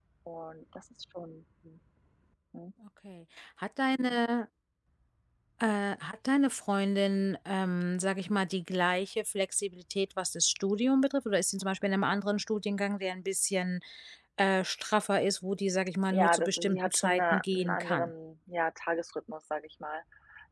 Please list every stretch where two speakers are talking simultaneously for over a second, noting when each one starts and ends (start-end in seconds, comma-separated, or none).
16.1-18.1